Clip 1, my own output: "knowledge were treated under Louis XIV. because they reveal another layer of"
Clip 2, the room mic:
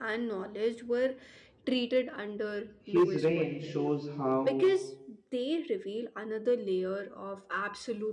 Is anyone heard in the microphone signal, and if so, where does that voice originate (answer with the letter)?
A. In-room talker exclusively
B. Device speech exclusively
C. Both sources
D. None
C